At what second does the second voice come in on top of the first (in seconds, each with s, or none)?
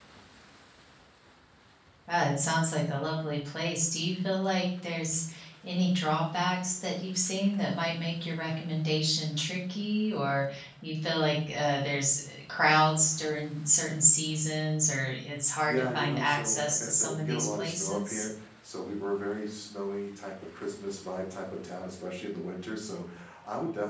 15.7 s